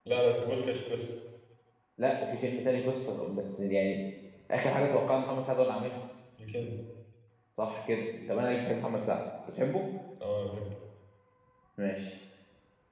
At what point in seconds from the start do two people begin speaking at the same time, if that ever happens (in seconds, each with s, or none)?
none